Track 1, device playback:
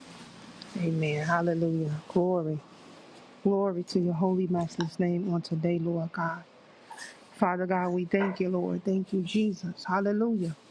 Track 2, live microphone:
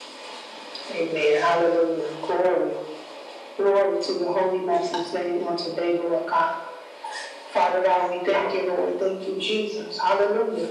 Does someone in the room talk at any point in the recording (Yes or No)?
No